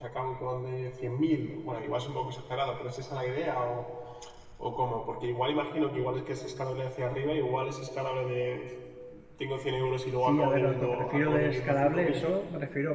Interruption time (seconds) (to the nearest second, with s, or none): 10 s